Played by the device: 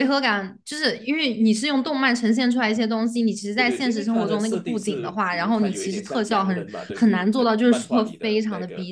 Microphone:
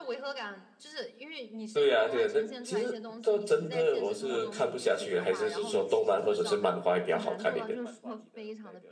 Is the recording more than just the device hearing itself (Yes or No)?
Yes